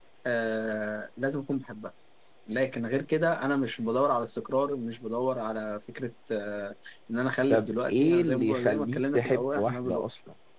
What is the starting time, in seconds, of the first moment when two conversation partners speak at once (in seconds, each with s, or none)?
7.5 s